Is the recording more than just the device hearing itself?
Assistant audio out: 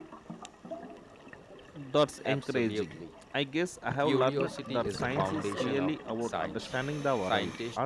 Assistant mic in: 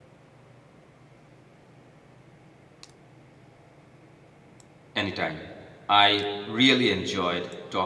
Yes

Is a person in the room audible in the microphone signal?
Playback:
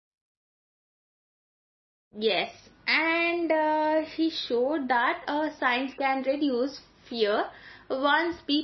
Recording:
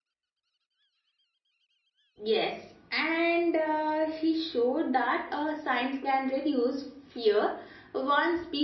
No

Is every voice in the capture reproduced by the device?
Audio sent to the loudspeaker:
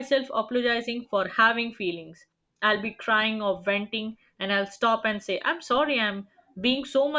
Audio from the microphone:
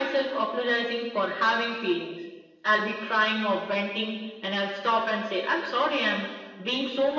Yes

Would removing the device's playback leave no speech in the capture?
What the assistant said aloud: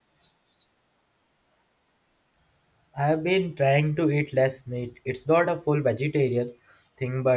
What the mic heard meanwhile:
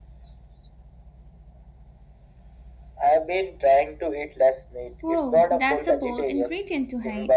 No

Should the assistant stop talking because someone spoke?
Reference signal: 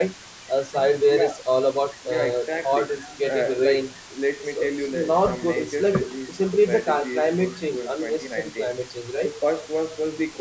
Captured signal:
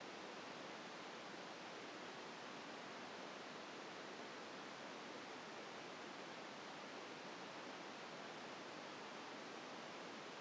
No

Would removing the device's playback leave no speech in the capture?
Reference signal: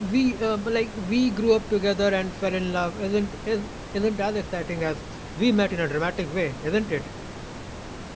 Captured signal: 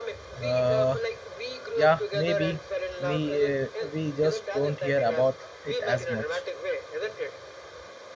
No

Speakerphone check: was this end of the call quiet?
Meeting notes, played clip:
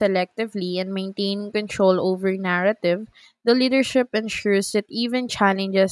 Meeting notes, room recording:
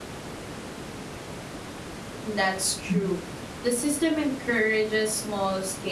No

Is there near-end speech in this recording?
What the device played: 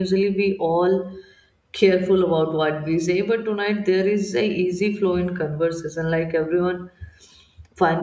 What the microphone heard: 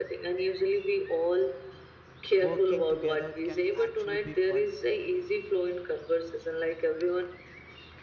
Yes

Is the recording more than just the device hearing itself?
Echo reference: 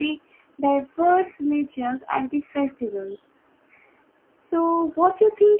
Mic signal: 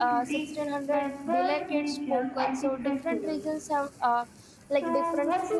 Yes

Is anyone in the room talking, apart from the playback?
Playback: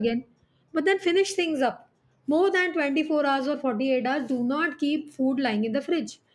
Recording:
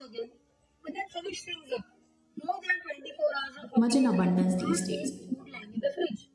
Yes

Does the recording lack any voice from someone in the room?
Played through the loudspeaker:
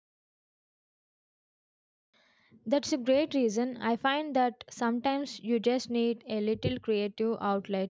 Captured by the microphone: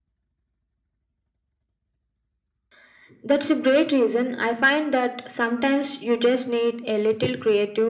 Yes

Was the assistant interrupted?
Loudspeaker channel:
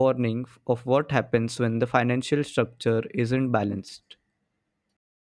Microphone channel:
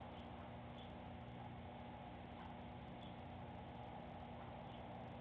No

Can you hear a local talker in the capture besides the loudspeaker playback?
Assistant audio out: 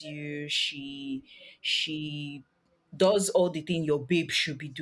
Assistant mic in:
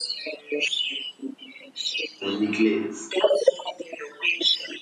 Yes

